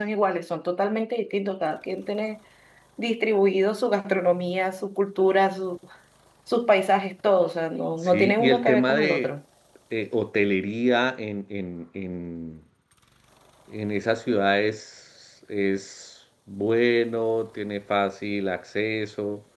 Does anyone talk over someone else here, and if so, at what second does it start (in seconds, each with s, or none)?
8.0 s